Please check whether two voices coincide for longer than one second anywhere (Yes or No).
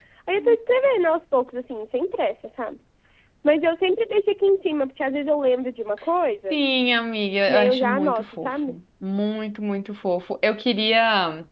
Yes